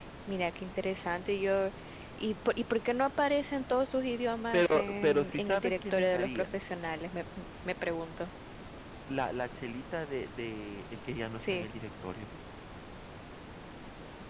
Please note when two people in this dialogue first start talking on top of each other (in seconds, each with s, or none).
4.5 s